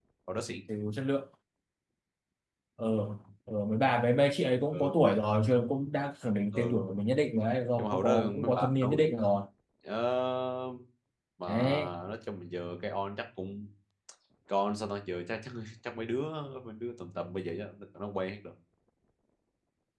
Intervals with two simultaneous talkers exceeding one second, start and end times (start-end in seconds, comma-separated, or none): 7.8-9.0